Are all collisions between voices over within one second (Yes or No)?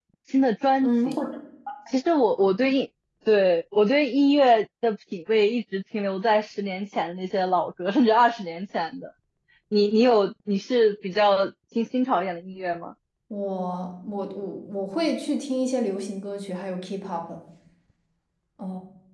Yes